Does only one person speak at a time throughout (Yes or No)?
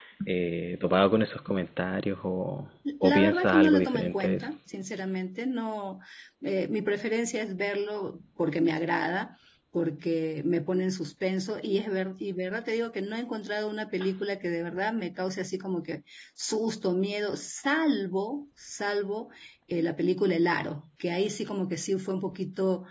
No